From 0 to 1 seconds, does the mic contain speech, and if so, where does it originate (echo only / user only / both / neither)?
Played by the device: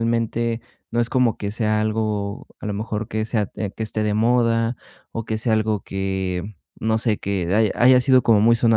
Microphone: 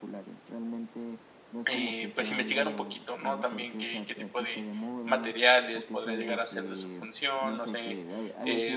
echo only